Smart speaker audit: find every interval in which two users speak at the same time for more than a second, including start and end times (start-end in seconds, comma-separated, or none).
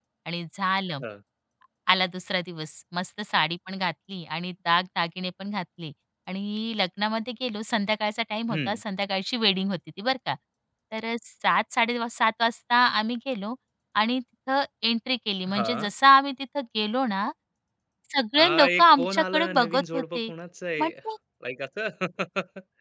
18.4-20.3